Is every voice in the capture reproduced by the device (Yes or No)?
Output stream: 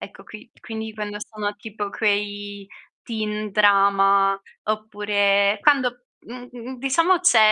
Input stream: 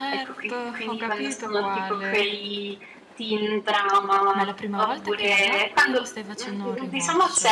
No